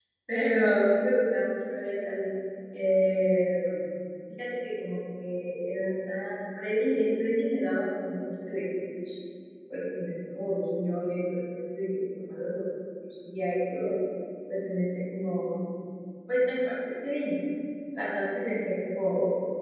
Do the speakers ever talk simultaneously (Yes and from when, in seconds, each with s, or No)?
No